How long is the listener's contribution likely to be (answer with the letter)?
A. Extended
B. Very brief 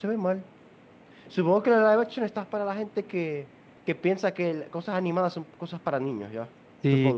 A